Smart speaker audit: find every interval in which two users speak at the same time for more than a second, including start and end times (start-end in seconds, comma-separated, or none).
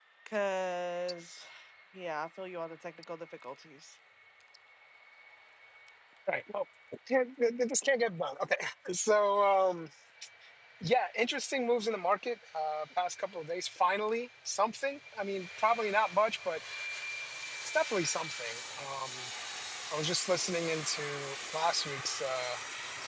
none